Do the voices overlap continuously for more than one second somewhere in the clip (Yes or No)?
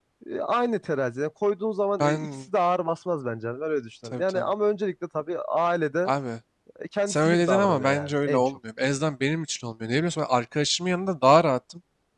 Yes